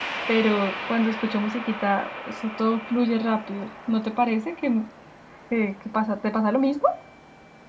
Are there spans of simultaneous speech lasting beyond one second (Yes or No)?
No